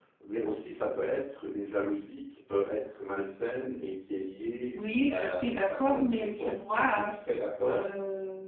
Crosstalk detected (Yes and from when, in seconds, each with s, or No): Yes, from 5.1 s